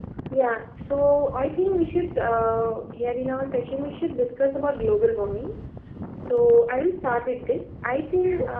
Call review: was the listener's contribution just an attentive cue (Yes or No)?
Yes